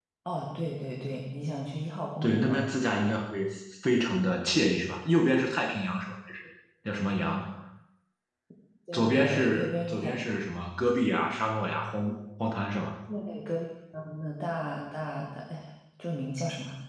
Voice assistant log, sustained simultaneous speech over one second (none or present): present